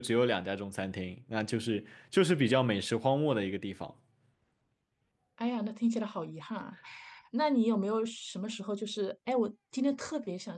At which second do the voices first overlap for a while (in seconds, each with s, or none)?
none